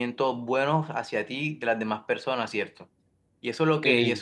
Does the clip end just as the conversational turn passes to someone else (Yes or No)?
No